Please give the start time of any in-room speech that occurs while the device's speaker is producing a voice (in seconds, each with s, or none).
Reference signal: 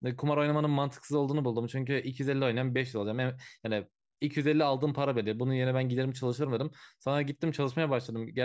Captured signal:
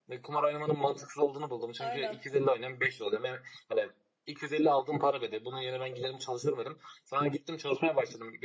1.8 s